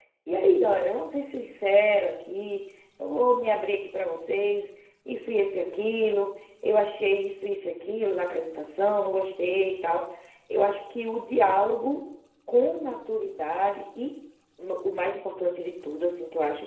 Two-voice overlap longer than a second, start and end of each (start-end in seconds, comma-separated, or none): none